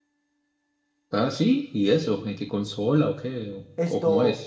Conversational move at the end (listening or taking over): taking over